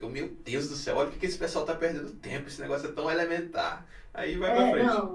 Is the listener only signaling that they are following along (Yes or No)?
No